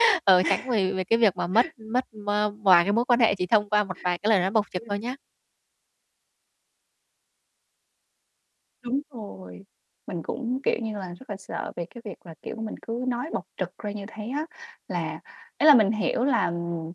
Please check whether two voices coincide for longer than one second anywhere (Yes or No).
No